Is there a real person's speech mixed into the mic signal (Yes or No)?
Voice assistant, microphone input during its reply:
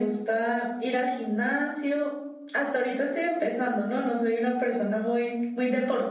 No